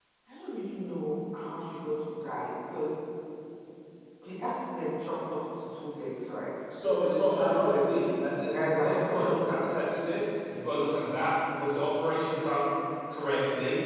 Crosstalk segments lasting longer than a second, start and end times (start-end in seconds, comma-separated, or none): 7.0-9.3